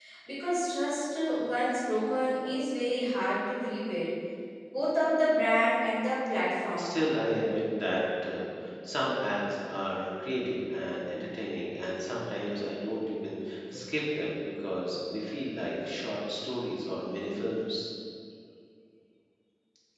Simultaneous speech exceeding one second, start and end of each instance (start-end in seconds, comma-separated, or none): none